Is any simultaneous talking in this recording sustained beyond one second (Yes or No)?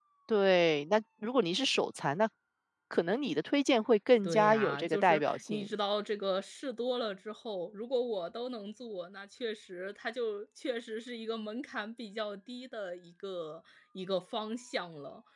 Yes